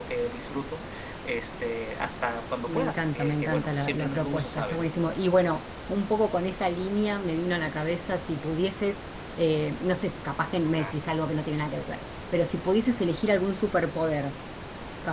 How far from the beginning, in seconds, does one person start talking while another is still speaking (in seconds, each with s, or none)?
2.7 s